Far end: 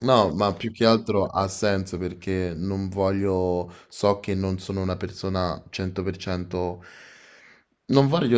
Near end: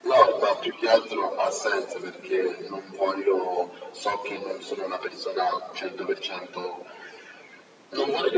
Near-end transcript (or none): none